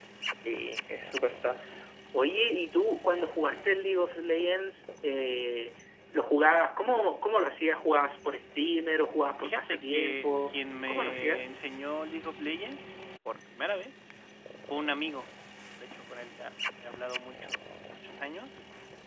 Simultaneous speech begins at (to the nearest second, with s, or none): 9 s